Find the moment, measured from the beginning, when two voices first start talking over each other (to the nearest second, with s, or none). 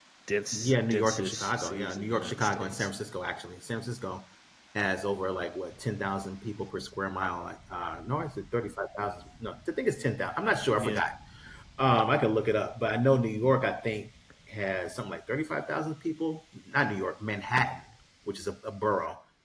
1 s